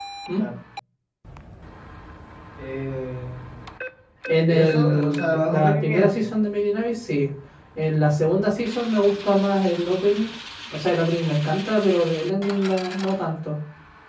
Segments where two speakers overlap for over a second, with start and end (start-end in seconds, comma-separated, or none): 4.5-6.2